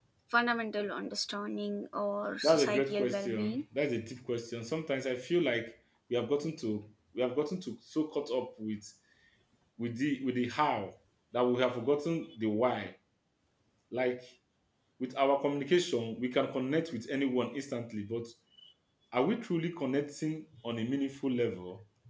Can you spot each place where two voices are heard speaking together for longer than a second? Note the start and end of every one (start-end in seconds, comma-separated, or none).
2.4-3.6